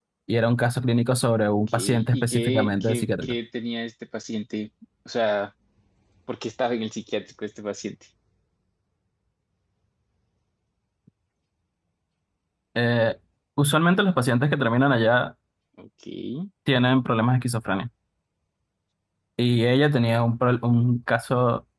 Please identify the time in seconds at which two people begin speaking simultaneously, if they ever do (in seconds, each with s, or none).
1.7 s